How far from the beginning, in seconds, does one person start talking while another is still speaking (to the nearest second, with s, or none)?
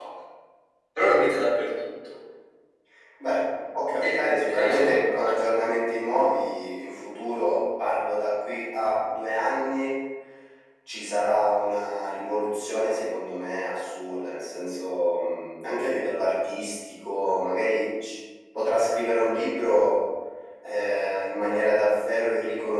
4 s